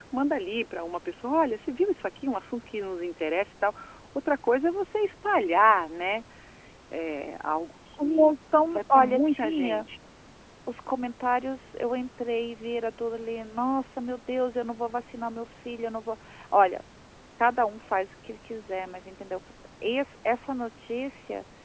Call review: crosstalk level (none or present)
present